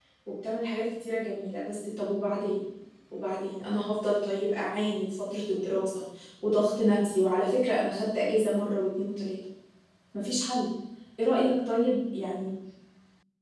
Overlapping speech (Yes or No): No